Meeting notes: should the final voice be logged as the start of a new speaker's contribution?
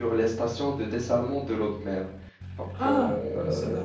Yes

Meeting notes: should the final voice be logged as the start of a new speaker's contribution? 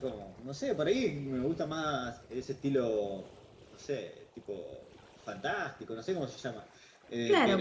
Yes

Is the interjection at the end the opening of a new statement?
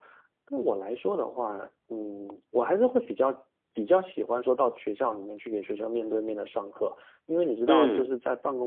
No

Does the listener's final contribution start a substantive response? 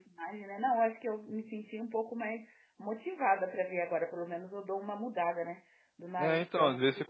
Yes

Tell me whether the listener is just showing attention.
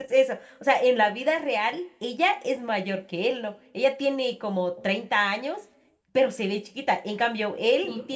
Yes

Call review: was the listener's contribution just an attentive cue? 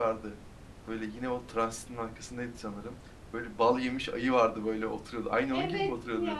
No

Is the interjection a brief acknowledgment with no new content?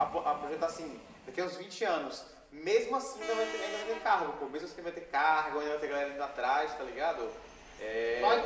No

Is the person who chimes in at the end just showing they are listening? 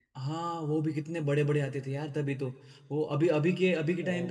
Yes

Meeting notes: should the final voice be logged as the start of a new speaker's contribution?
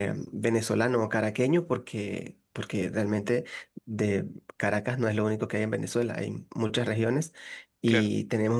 No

